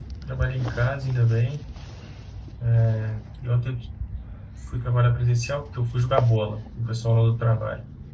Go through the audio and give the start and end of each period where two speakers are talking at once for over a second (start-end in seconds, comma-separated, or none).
none